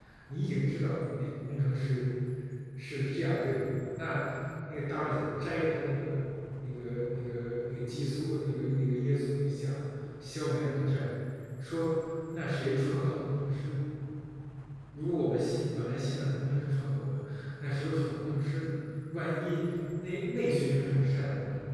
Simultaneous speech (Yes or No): No